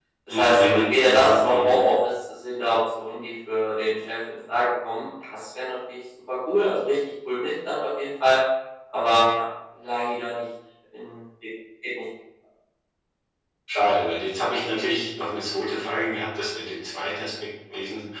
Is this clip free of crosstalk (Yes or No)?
No